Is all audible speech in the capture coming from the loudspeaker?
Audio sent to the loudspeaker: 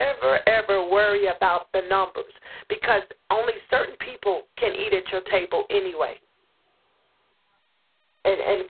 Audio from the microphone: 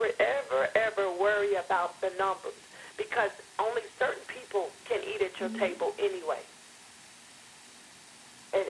No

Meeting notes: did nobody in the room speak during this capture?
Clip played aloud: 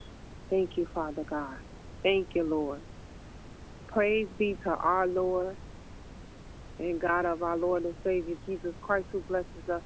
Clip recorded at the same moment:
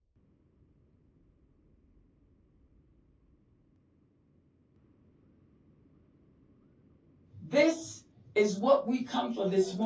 No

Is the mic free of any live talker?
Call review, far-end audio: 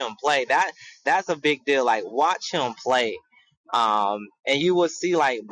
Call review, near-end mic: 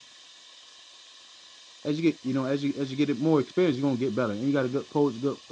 No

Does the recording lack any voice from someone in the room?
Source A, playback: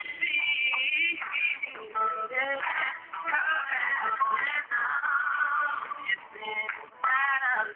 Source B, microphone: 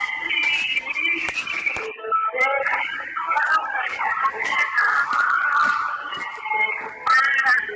Yes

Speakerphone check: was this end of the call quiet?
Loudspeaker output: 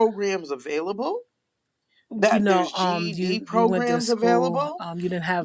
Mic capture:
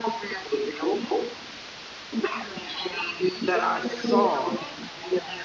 No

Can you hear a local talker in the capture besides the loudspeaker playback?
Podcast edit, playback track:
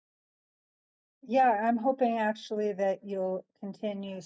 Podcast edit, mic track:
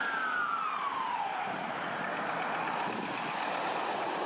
No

